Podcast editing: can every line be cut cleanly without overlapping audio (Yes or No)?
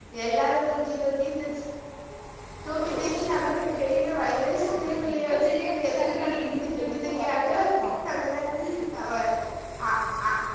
No